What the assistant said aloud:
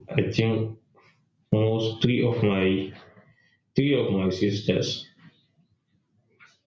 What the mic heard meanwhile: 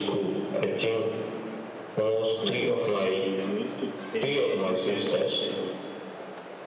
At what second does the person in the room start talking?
2 s

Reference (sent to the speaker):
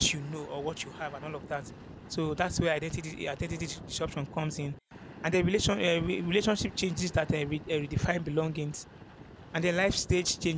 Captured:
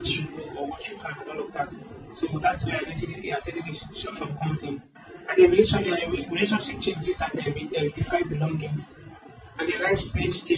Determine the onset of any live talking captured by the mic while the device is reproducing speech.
none

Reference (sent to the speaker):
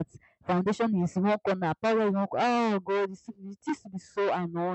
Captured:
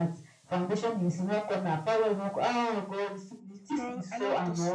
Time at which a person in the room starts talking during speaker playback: 4 s

